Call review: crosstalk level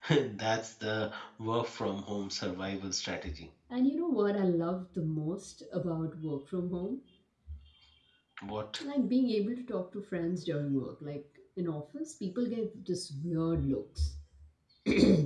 none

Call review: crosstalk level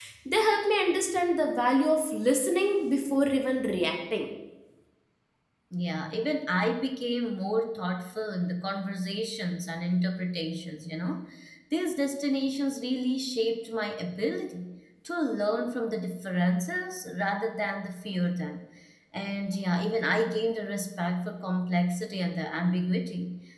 none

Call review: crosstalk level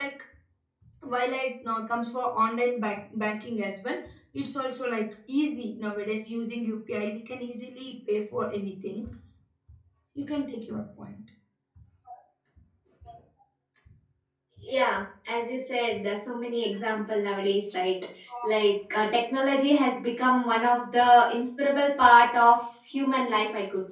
none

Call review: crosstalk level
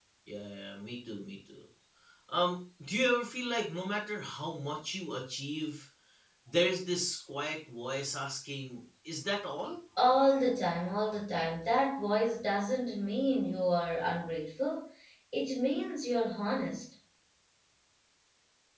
none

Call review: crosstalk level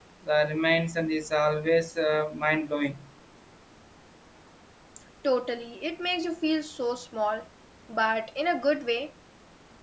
none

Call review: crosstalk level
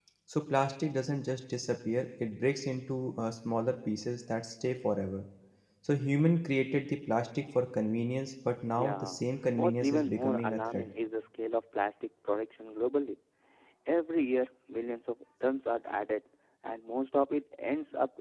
present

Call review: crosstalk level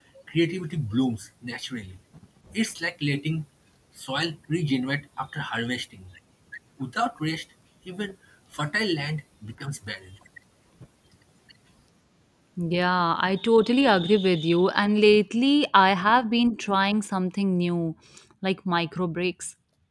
none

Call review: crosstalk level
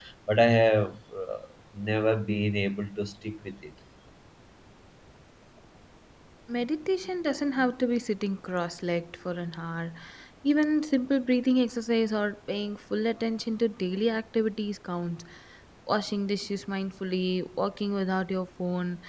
none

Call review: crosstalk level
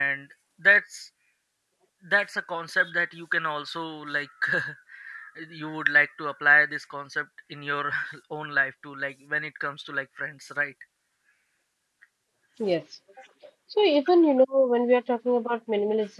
none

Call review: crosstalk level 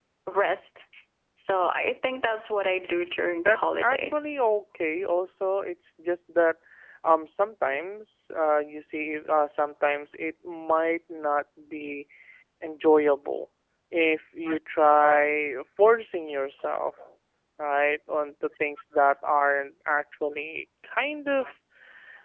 present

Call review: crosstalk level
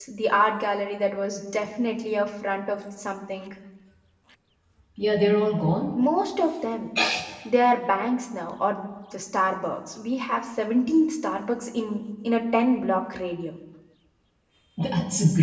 none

